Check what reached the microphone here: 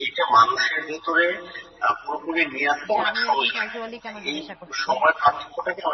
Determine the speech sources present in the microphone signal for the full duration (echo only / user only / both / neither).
both